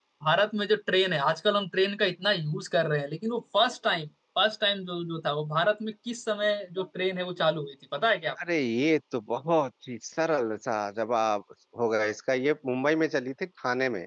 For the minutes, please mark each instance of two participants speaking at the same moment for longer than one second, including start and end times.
none

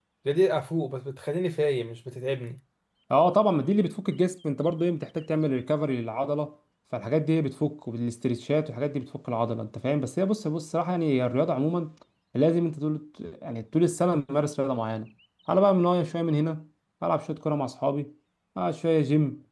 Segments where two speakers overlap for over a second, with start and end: none

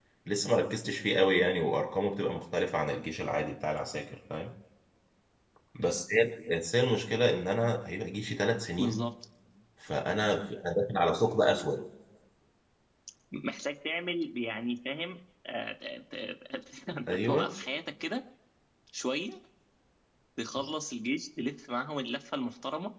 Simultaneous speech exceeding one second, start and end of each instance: none

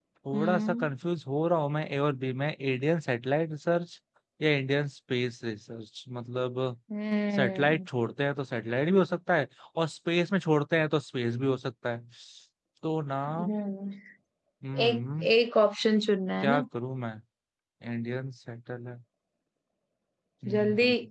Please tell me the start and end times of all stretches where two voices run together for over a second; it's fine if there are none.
none

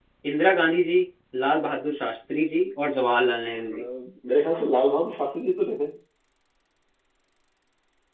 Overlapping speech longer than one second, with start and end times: none

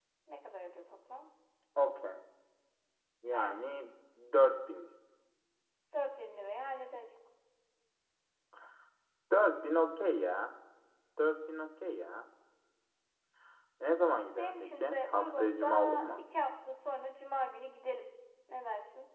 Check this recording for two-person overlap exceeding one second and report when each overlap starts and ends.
14.4-16.2

